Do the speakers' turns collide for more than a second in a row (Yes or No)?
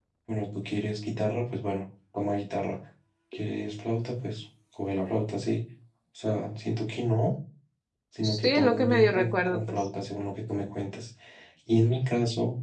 Yes